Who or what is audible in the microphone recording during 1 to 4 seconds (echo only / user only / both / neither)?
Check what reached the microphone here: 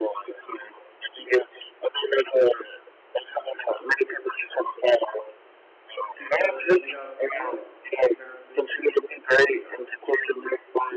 echo only